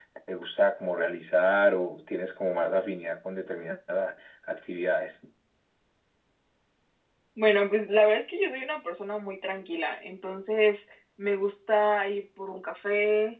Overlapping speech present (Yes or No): No